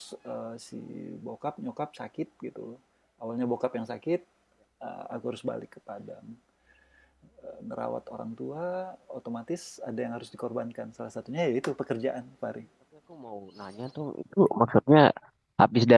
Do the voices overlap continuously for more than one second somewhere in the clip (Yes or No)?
No